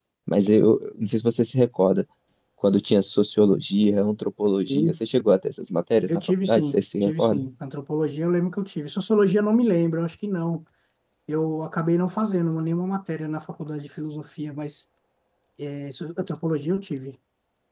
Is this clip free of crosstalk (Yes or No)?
No